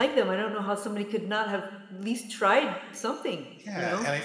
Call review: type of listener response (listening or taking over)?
taking over